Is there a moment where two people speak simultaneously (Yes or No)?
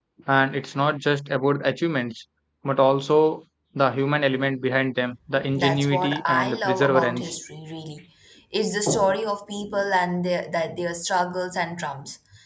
Yes